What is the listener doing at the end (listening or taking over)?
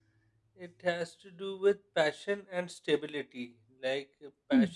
listening